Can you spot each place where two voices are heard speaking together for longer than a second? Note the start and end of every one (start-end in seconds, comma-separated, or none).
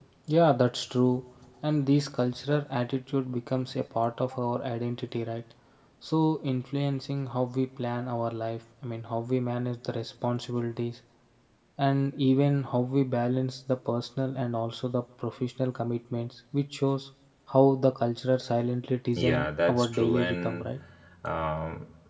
19.2-20.7